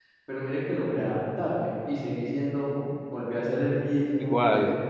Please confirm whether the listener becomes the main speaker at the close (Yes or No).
No